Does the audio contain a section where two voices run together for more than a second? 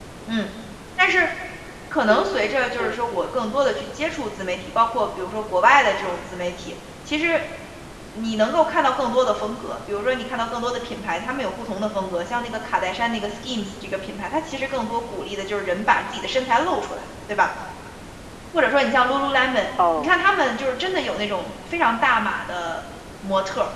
Yes, from 2.1 s

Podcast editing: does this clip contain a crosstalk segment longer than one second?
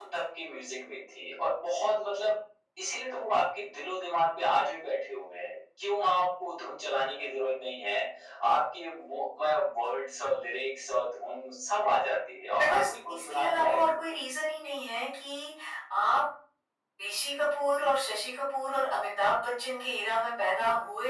Yes, from 12.6 s

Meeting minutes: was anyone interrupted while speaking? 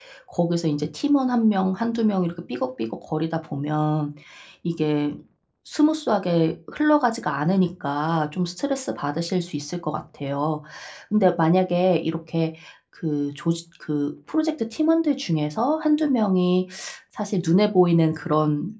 No

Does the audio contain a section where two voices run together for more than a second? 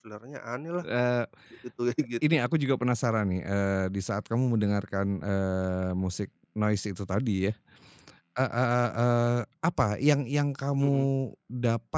No

